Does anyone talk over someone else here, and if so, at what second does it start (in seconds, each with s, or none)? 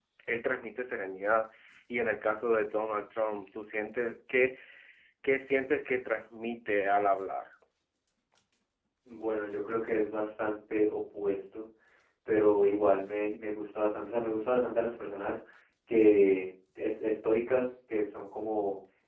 none